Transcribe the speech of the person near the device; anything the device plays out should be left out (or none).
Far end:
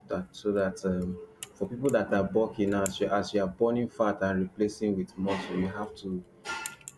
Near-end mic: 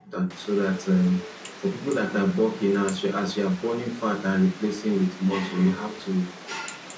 none